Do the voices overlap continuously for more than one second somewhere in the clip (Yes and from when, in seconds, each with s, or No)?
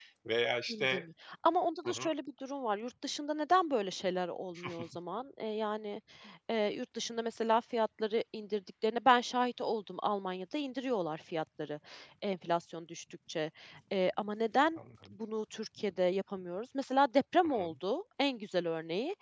No